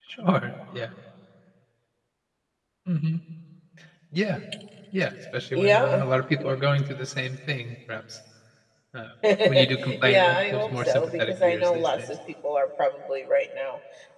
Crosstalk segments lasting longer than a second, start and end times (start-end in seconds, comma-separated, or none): 10.0-12.1